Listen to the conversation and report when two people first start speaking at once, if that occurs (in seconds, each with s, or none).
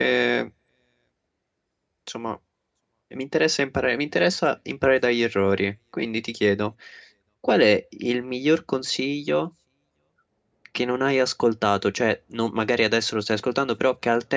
none